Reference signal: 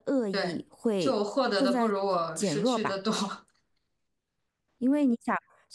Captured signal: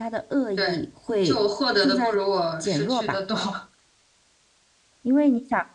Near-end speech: none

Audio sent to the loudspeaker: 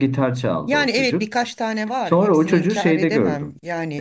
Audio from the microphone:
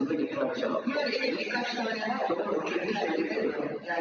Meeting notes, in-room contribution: none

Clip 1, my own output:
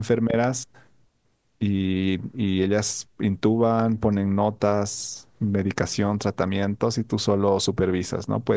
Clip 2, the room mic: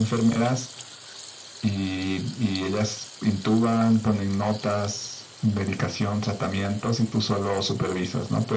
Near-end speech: none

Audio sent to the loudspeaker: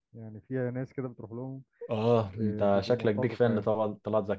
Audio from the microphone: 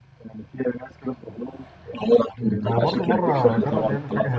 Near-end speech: present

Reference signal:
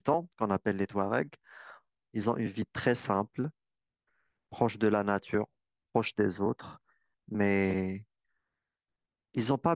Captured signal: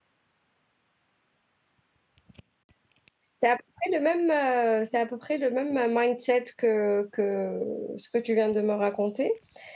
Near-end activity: present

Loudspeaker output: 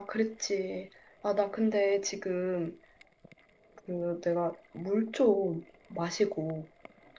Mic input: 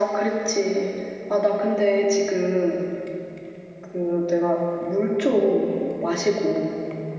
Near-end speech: none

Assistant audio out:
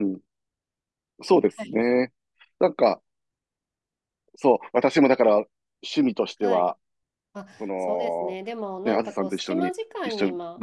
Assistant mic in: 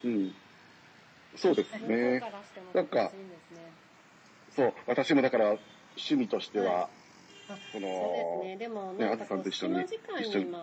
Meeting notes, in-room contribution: present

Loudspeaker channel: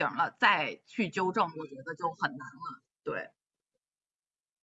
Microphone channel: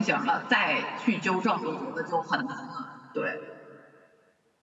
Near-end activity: none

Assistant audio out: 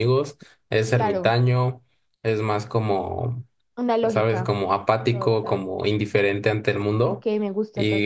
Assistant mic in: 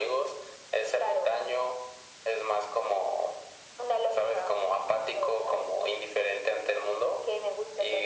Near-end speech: none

